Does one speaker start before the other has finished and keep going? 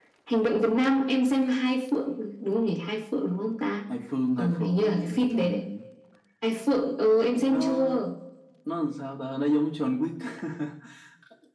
Yes, from 4.4 s

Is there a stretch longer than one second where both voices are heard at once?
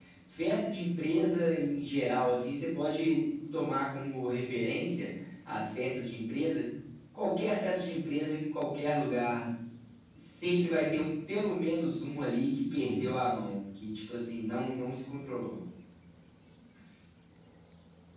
No

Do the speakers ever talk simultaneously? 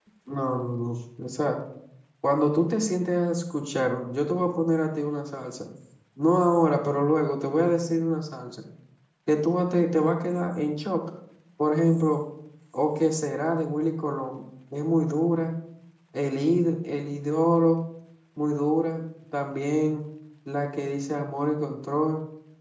No

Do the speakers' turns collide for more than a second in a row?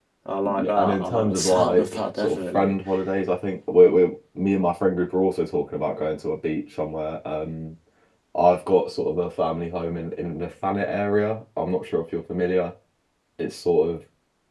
Yes, from 0.6 s

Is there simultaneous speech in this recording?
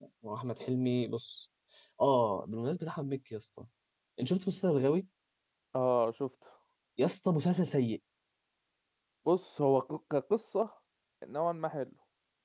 No

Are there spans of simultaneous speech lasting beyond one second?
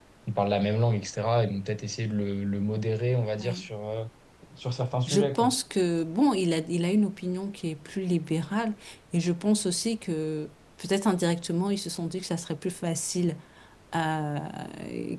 No

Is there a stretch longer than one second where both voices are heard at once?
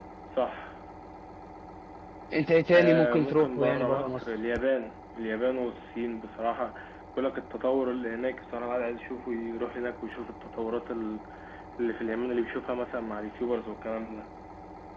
Yes, from 2.7 s

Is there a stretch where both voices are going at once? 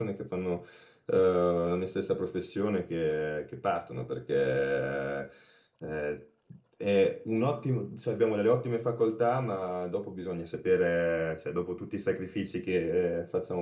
No

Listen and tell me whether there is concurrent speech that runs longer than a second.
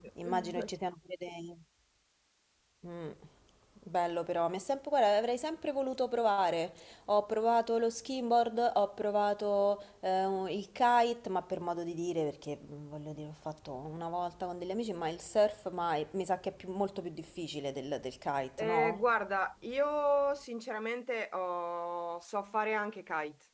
No

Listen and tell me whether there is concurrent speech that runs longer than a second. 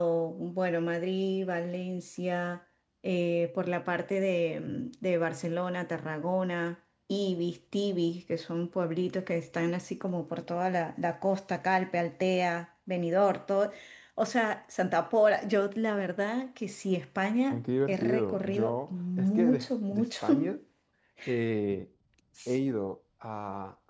Yes, from 17.5 s

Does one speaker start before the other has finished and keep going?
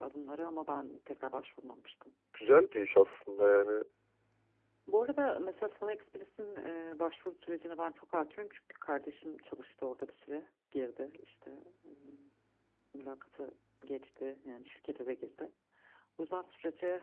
No

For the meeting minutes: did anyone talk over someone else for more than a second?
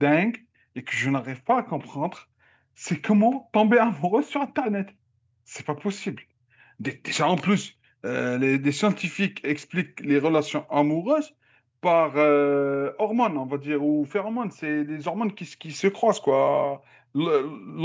No

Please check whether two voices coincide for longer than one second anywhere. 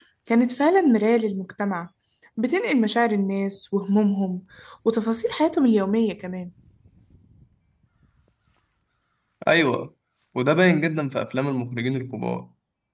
No

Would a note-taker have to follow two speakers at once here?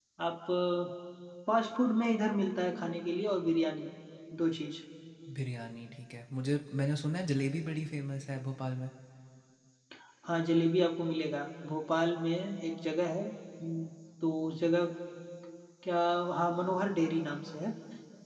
No

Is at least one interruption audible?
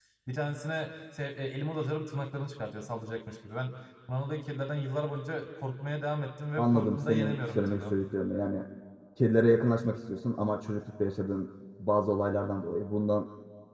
Yes, from 6.6 s

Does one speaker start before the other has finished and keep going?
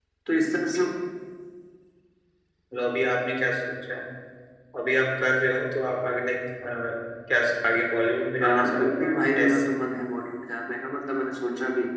Yes, from 8.4 s

